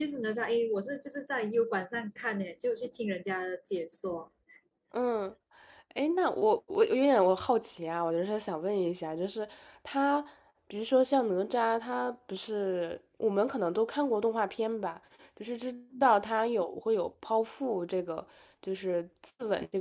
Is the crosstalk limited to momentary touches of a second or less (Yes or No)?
Yes